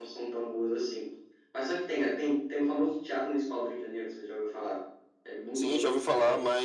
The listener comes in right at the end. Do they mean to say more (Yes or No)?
Yes